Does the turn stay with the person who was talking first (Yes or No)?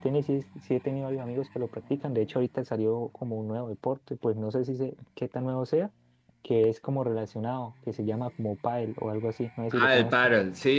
No